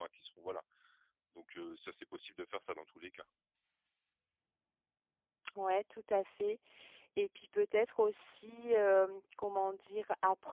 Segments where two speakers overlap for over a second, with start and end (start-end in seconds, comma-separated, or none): none